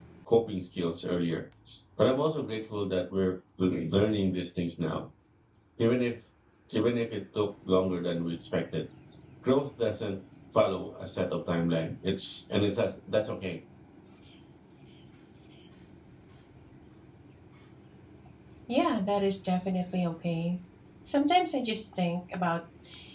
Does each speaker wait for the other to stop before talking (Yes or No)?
Yes